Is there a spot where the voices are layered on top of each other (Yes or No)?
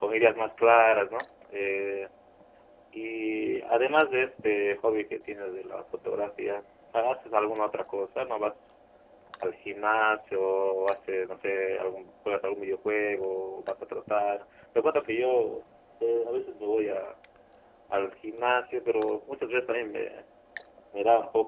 No